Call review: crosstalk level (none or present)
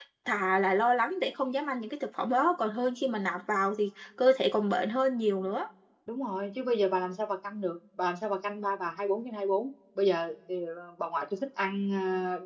none